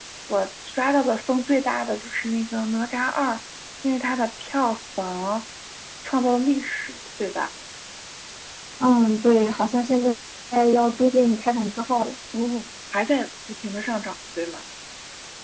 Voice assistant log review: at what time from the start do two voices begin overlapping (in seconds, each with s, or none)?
none